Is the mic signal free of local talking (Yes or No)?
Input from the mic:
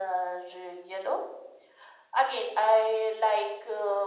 Yes